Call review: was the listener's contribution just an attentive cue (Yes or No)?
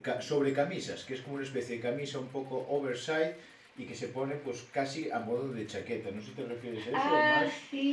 No